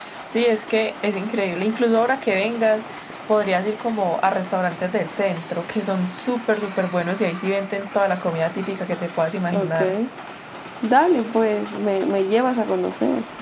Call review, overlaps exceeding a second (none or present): none